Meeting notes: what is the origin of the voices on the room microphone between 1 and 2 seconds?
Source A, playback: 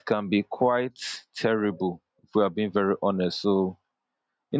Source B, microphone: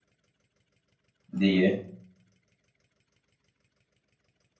user only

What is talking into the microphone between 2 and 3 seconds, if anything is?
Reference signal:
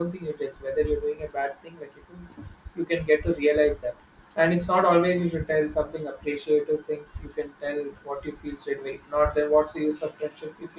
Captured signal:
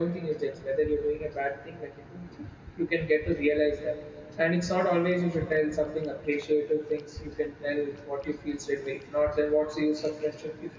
echo only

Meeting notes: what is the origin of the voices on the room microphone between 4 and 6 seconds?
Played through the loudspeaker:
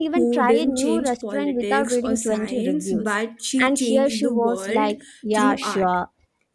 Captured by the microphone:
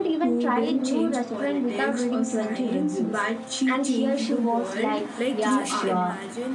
both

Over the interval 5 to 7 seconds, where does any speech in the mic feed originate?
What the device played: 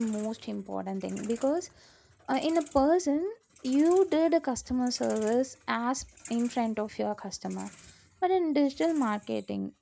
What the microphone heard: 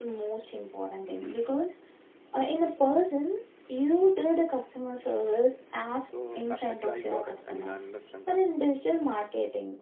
both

